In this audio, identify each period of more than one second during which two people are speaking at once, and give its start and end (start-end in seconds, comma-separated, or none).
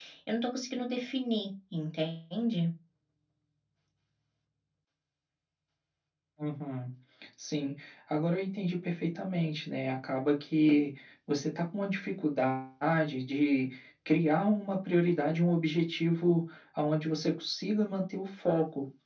none